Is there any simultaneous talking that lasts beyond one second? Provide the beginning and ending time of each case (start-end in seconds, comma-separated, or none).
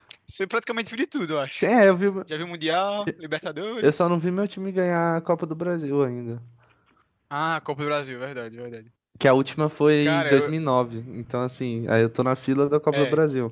none